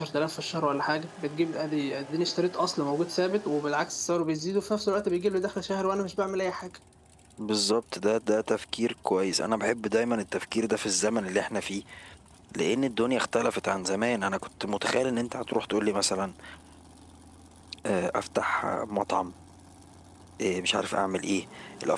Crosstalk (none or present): none